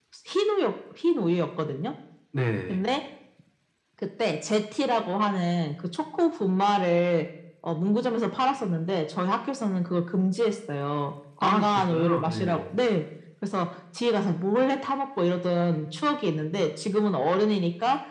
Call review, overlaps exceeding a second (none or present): present